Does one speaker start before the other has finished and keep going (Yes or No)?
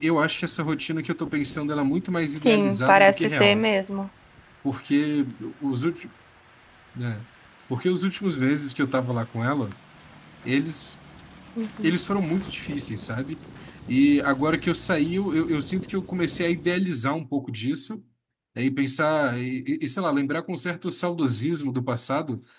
Yes